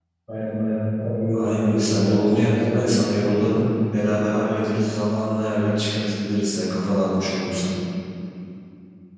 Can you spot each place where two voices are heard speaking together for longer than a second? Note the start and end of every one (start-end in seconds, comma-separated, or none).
1.3-3.6